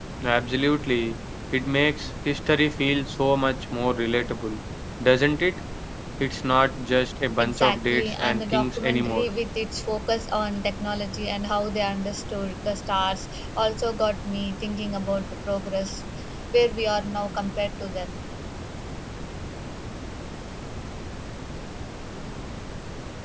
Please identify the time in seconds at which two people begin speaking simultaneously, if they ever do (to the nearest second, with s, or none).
7 s